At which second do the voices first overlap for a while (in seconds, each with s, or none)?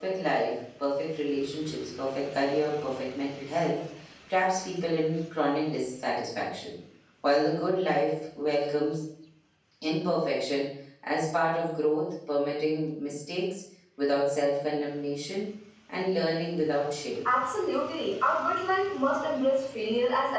none